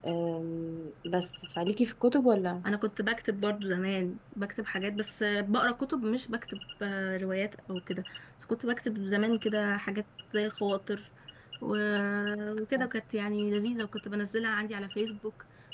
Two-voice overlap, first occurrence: none

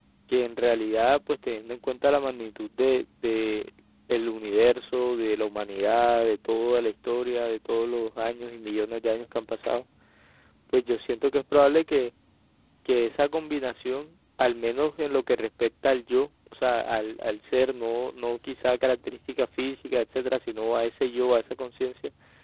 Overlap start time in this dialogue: none

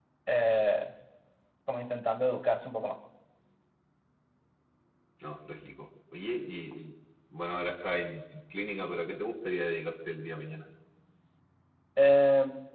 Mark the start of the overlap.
none

